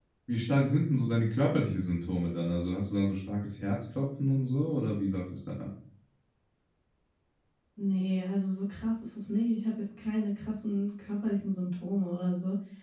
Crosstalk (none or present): none